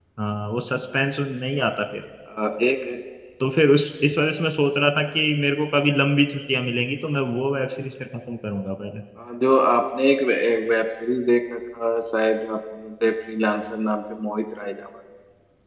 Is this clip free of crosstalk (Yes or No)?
Yes